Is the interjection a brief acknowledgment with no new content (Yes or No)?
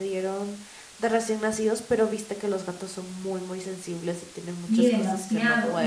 No